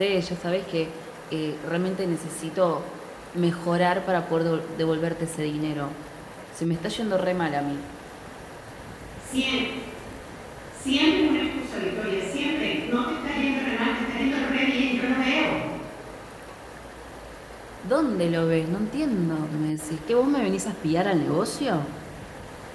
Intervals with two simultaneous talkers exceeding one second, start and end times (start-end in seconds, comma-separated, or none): none